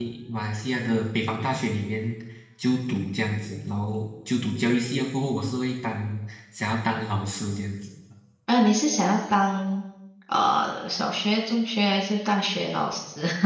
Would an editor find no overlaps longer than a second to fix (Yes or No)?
Yes